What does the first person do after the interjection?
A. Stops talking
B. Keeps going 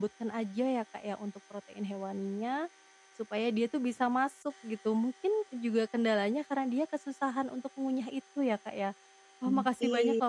B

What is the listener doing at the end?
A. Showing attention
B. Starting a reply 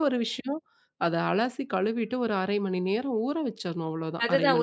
B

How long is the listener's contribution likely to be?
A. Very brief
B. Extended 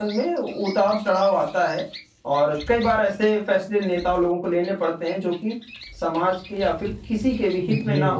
B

